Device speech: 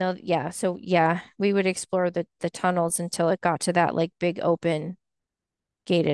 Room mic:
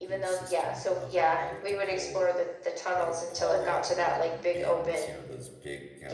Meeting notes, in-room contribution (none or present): present